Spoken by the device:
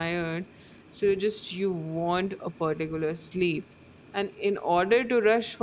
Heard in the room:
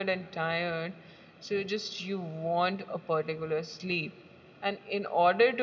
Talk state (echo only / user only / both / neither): echo only